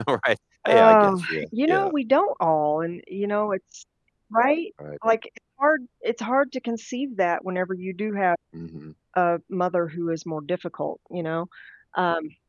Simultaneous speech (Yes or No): Yes